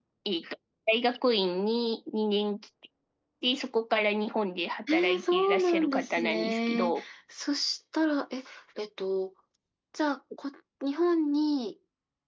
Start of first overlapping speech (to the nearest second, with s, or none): 5 s